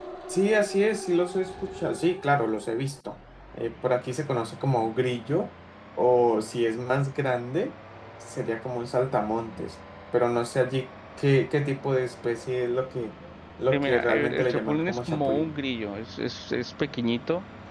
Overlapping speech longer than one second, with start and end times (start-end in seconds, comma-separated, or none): 13.7-15.5